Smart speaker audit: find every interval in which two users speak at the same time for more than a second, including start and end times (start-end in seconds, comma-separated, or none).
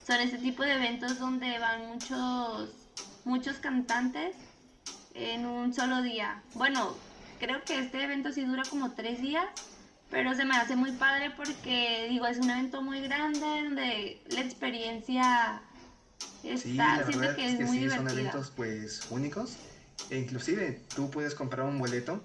16.6-18.4